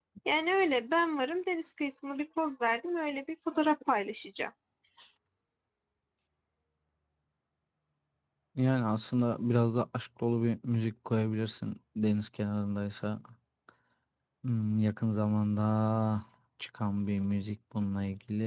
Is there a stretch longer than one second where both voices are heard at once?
No

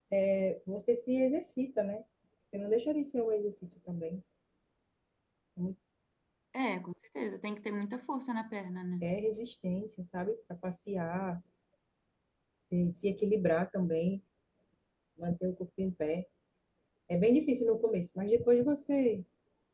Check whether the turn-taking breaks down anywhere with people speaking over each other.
No

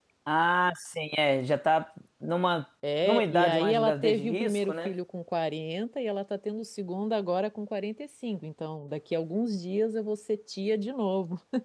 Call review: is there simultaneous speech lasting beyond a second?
Yes, from 2.8 s

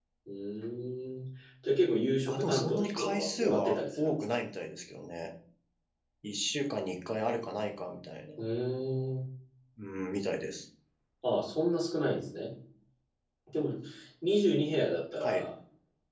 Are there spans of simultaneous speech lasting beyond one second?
Yes, from 2.3 s

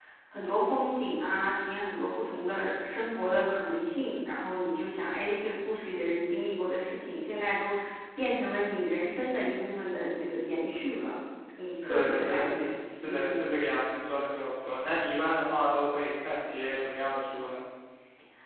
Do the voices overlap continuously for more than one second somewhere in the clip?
Yes, from 11.7 s

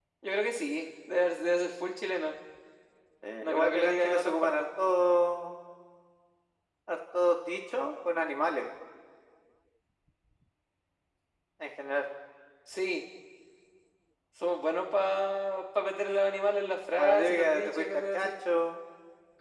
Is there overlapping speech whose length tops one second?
Yes, from 3.4 s

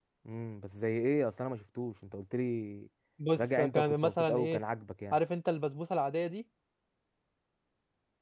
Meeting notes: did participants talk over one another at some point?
Yes, from 3.4 s

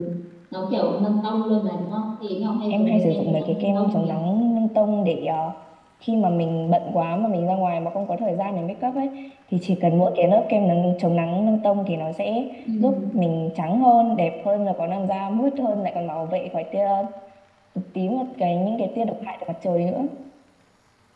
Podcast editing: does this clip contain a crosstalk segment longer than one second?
Yes, from 2.7 s

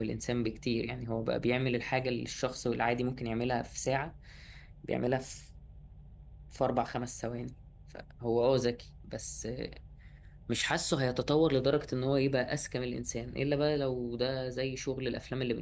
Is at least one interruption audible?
No

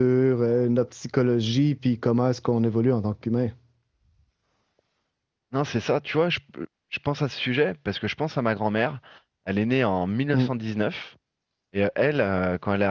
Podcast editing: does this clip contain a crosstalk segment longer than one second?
No

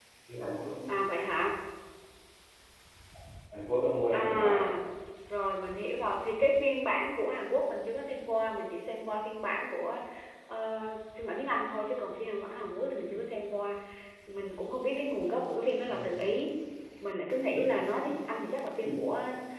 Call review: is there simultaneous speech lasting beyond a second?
No

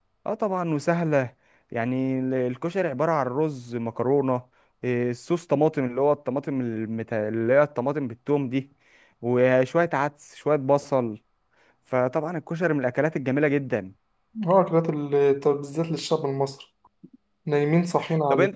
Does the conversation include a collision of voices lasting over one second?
No

